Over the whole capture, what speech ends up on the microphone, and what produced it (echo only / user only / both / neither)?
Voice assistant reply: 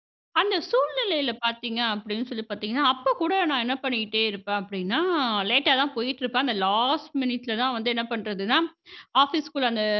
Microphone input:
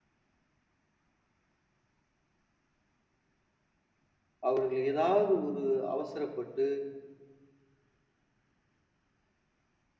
user only